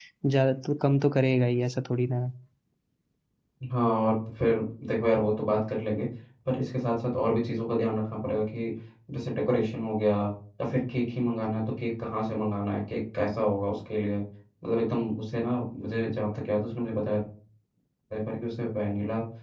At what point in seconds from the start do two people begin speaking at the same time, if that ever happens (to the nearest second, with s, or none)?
none